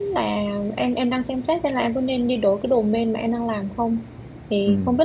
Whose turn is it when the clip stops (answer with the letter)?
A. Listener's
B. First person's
B